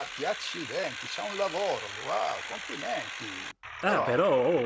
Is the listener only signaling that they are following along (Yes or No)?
No